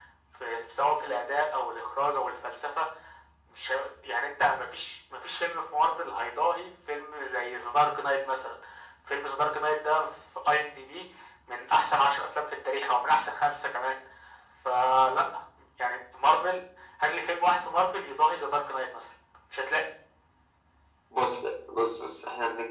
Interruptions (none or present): none